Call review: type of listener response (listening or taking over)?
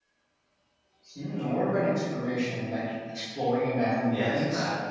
taking over